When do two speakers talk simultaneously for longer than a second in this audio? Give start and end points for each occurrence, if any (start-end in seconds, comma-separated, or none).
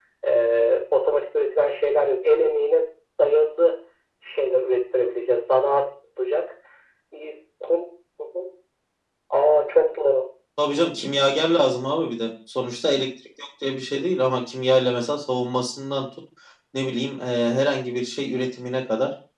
none